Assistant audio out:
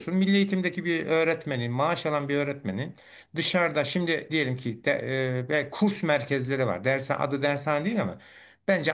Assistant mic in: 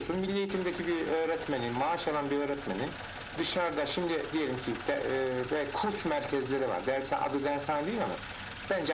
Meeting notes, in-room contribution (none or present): none